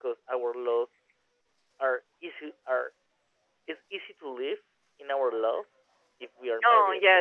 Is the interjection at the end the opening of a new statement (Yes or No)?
No